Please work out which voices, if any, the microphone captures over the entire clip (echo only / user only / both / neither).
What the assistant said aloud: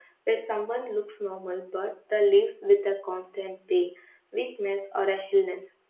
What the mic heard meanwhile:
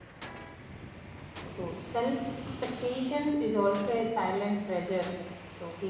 user only